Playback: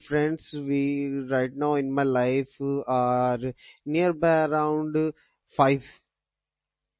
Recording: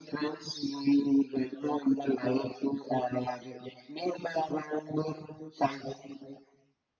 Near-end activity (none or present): none